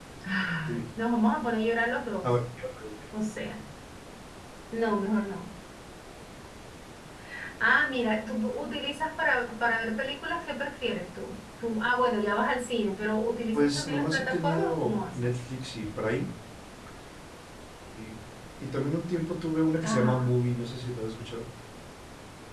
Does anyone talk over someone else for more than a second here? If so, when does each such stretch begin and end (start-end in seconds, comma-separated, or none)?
13.5-15.3